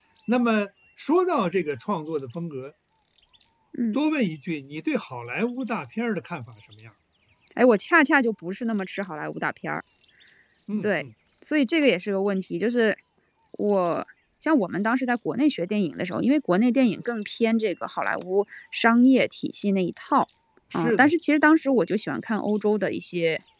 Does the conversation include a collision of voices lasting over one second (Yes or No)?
No